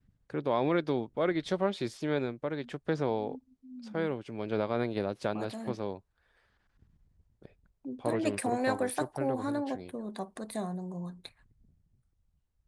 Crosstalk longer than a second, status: present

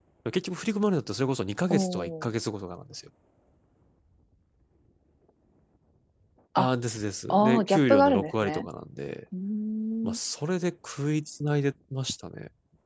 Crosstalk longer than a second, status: present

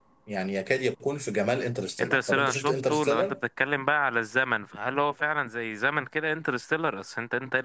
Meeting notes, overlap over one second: present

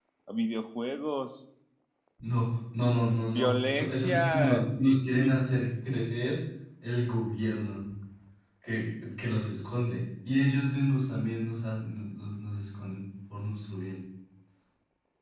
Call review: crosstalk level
present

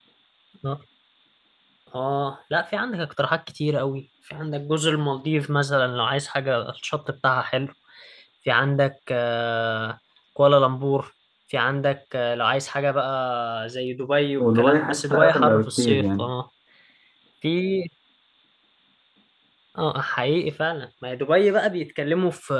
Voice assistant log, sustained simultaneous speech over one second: present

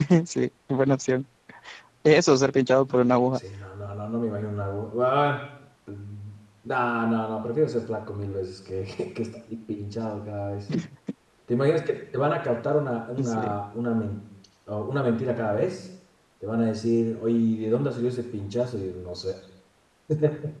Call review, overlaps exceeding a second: none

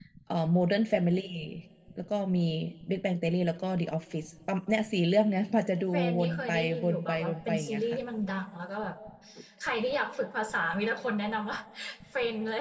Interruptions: present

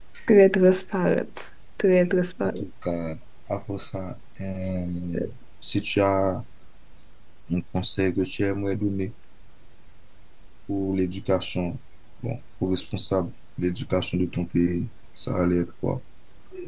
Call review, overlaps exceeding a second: none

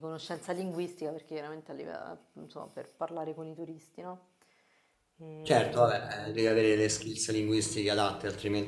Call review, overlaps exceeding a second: none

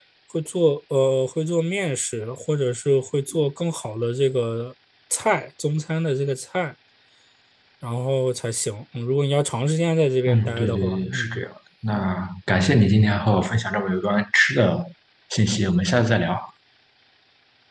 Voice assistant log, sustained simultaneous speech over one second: present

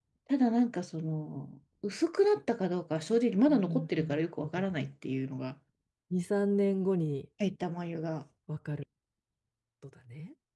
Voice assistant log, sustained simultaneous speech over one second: present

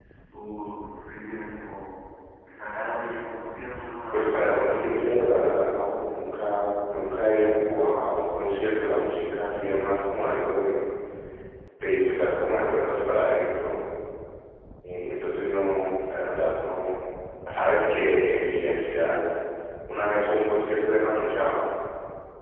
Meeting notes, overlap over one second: present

